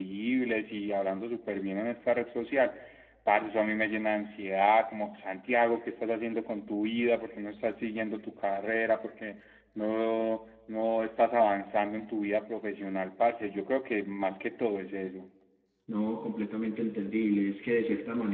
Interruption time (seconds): none

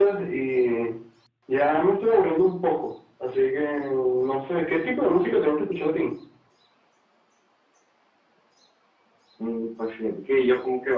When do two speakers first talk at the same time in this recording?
none

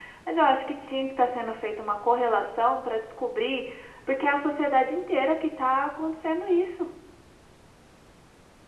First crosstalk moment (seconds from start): none

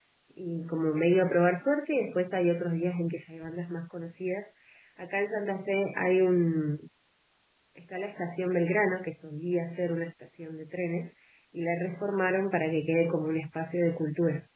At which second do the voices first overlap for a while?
none

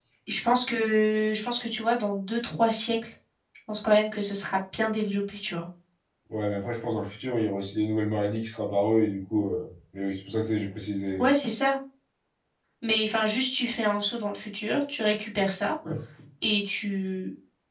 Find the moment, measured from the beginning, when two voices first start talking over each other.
none

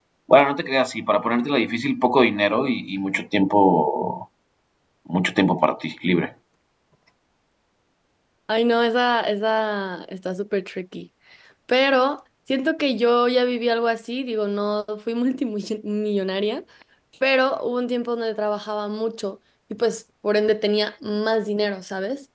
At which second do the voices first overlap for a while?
none

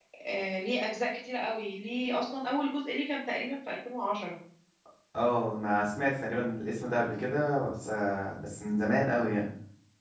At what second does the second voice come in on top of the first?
none

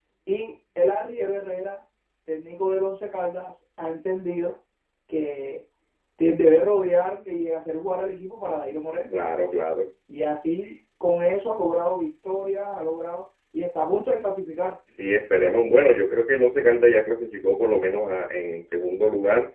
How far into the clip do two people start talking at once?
none

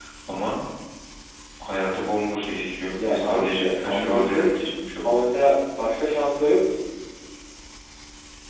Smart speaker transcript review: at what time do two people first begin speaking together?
3.0 s

